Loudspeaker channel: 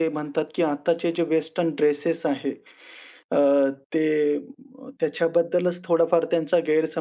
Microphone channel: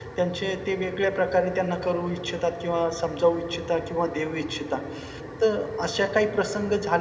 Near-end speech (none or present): present